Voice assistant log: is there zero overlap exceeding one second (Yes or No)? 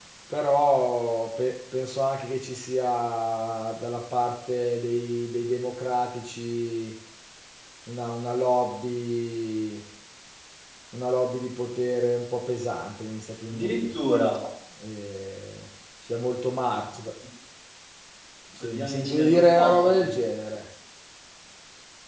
No